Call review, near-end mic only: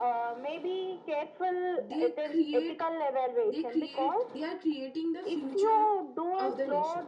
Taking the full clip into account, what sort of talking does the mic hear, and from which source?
both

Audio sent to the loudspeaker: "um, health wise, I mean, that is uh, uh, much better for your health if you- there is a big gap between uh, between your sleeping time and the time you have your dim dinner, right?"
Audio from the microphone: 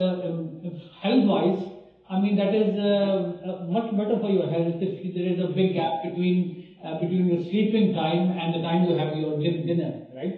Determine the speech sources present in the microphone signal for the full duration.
echo only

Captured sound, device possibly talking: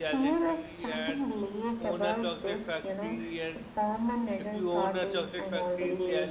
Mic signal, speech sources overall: both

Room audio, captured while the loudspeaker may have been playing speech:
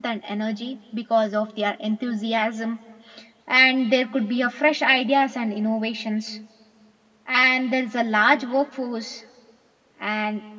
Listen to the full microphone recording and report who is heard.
user only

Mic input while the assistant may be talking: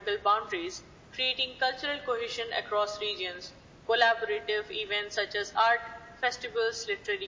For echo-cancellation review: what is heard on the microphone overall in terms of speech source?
echo only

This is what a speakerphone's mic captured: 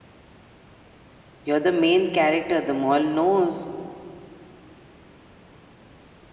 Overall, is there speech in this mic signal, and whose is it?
user only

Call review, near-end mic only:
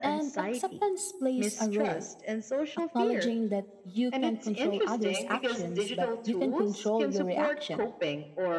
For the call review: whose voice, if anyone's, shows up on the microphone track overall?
both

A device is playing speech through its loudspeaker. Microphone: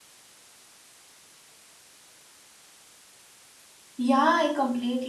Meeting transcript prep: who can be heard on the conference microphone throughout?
user only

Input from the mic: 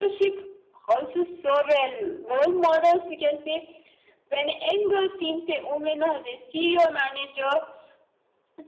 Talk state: echo only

